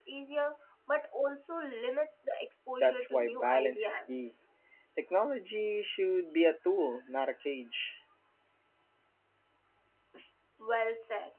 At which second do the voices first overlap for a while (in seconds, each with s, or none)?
2.8 s